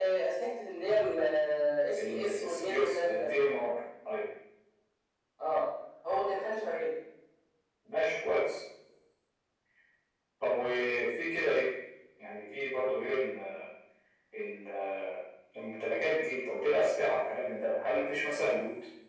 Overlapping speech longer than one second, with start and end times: 2.0-3.3

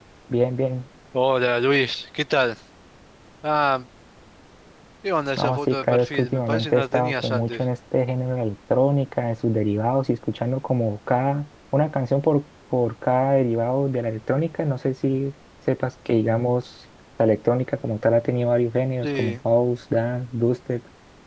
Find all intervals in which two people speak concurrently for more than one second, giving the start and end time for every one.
5.4-7.6

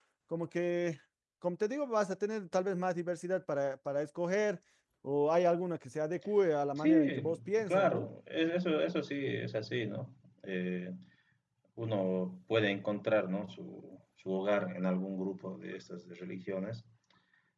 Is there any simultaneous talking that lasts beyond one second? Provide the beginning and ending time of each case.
6.8-8.1

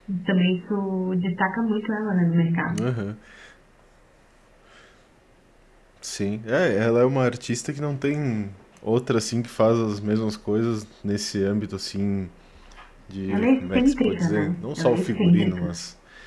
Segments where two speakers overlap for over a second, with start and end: 13.3-15.8

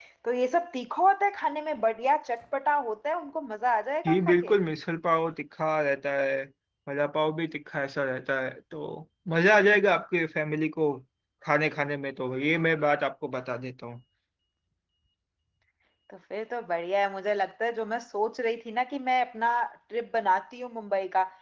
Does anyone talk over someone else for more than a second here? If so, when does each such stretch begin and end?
none

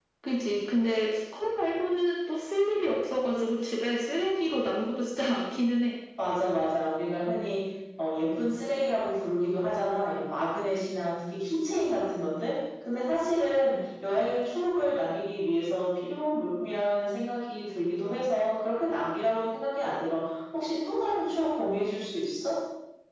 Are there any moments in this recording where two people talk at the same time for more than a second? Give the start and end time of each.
none

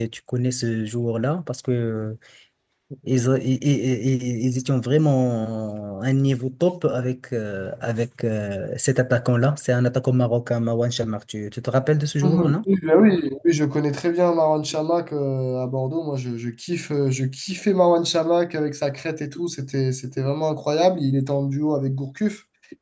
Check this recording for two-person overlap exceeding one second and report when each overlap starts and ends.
none

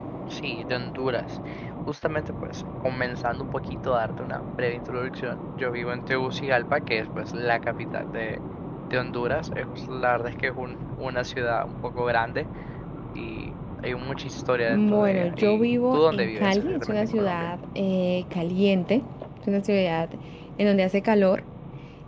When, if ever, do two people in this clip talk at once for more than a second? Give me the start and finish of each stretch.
14.7-17.5

